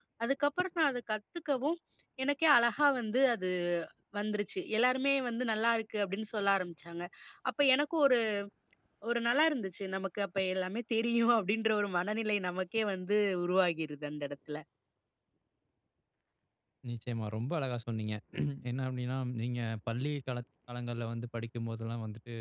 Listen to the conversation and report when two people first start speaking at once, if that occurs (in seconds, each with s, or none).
none